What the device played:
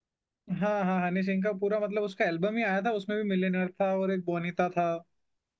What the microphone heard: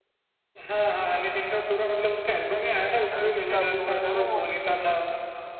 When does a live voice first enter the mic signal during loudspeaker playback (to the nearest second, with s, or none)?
3 s